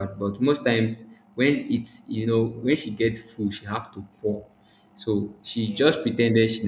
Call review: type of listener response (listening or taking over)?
listening